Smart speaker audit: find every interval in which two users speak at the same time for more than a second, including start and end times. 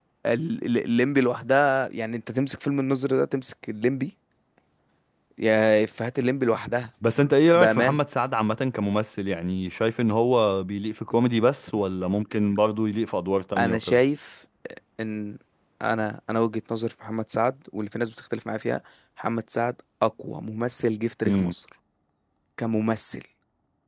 none

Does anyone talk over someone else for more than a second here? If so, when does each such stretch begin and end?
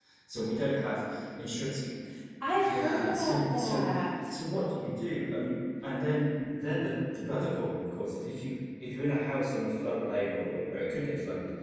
2.4-3.8

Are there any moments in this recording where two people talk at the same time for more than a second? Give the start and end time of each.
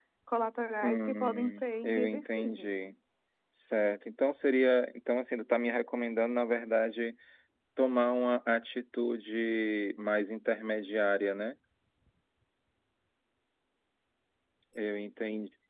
0.8-2.8

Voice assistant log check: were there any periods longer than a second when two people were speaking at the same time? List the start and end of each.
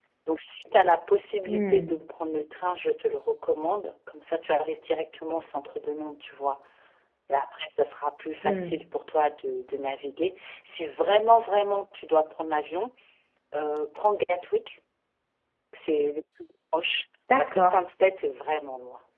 none

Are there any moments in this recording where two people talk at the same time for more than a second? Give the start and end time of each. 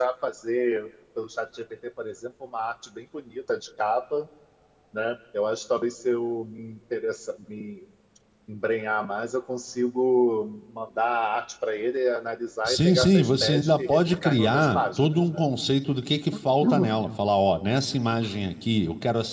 12.7-15.4

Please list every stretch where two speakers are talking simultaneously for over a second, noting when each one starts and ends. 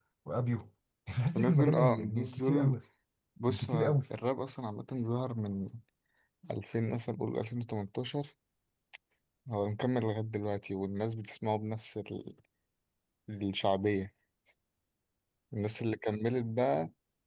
1.4-2.8

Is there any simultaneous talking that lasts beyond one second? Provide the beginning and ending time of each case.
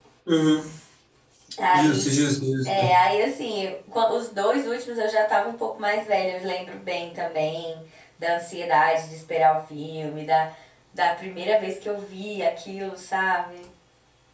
none

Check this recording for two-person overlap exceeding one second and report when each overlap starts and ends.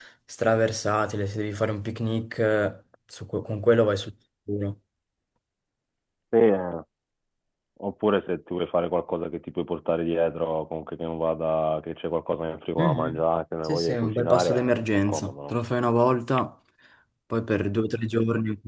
13.6-15.5

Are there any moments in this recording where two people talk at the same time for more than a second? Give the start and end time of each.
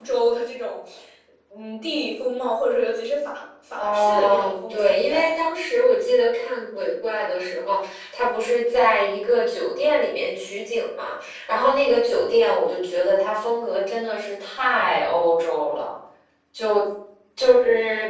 3.8-5.3

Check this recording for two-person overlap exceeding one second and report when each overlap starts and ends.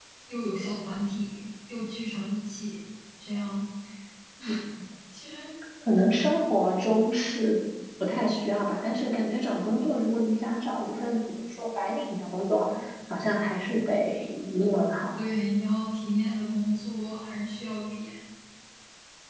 none

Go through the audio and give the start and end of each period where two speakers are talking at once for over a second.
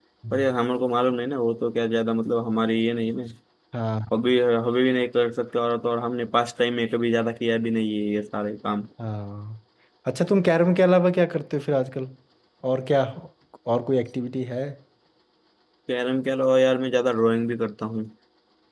none

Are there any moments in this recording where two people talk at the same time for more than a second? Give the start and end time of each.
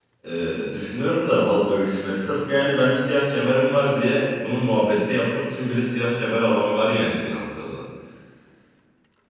none

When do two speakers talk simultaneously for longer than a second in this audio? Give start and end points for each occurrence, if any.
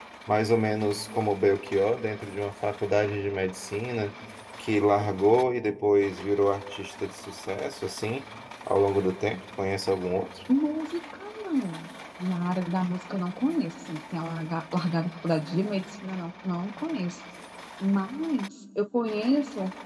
none

